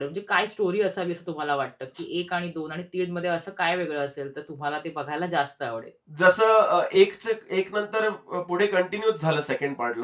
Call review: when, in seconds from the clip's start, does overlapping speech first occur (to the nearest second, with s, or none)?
none